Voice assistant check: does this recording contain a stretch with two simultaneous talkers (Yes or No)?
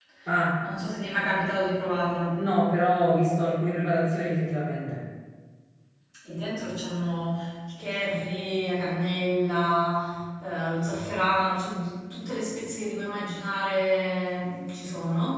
No